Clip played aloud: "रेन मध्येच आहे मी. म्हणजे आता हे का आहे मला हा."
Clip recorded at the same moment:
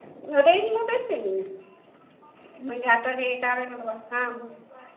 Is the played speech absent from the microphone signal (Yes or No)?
No